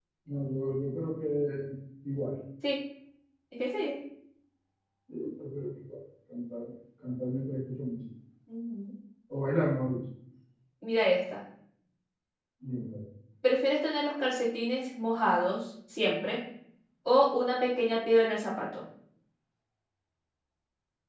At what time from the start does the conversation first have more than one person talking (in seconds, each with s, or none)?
none